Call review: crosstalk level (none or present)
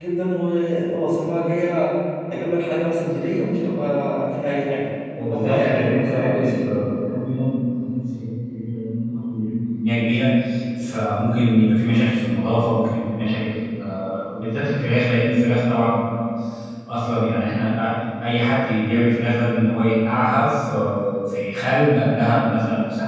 present